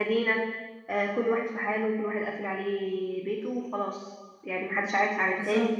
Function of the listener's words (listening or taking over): listening